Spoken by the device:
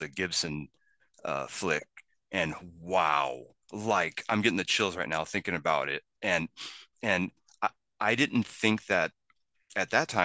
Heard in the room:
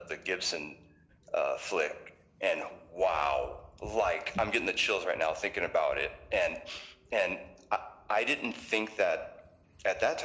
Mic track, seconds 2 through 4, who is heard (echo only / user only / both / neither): echo only